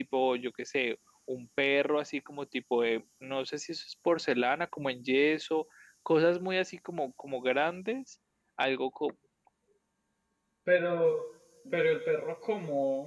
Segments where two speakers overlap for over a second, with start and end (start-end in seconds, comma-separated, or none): none